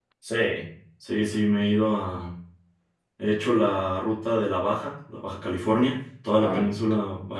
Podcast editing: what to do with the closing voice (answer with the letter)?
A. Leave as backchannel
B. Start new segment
A